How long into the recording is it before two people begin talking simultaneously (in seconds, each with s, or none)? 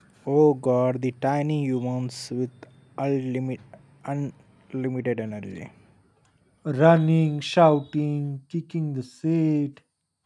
none